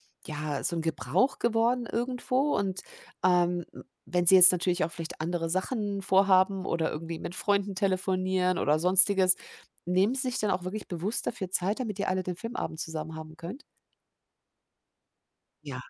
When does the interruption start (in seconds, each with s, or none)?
none